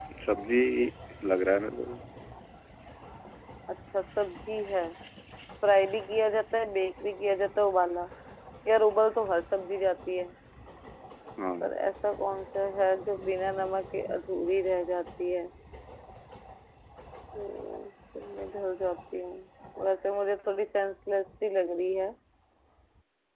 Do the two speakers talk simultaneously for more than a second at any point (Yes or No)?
No